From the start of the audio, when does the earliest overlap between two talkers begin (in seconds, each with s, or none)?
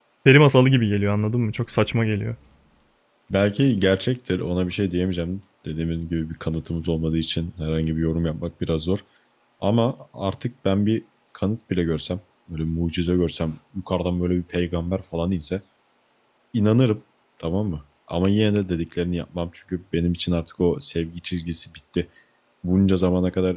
none